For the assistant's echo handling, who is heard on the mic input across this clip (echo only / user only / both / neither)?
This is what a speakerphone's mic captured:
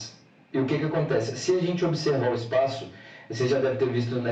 echo only